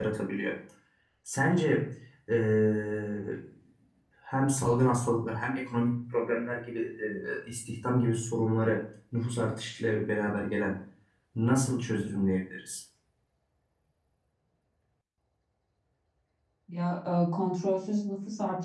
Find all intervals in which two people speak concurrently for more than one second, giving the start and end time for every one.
none

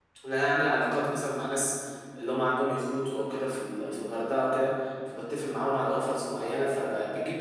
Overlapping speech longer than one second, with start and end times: none

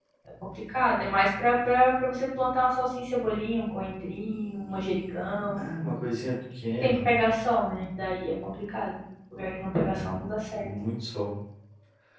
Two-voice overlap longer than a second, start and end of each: none

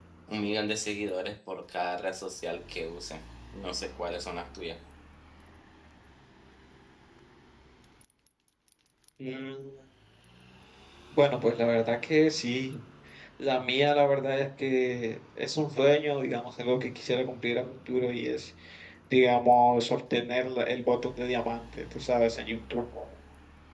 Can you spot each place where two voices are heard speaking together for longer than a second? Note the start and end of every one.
none

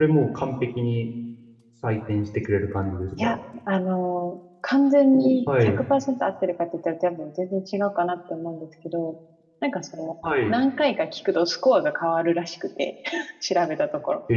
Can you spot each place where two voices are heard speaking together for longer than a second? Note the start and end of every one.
none

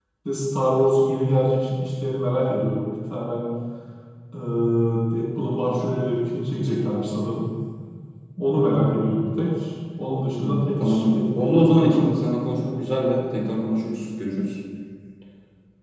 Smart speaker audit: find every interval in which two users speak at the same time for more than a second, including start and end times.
10.4-12.2

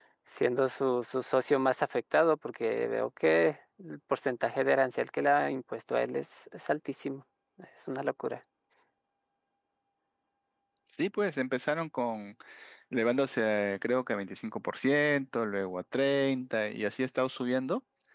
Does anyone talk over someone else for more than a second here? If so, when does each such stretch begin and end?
none

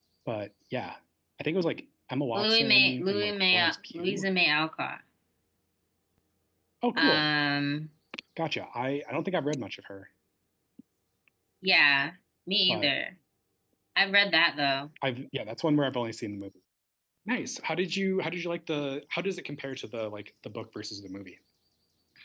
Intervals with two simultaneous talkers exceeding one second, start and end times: 2.3-4.3

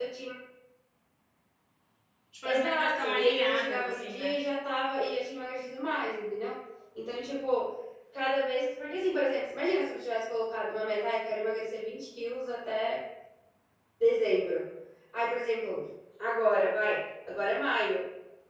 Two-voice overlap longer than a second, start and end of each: 2.4-4.3

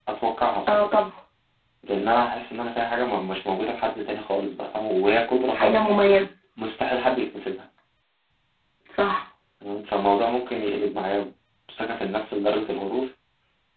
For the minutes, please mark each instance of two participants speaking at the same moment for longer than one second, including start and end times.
none

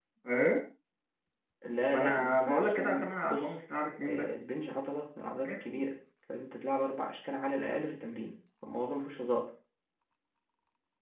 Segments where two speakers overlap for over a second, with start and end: 1.9-3.6

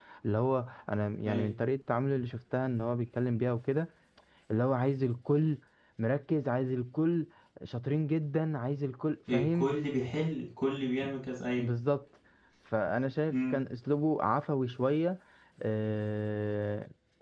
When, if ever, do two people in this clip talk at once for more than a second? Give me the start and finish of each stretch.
none

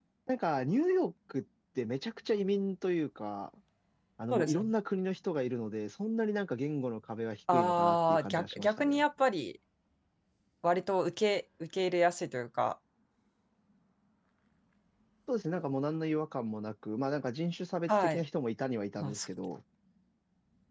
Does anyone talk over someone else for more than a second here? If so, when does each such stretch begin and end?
7.5-9.0

